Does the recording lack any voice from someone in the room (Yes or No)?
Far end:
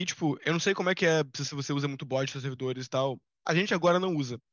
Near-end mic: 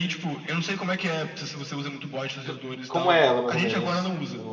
No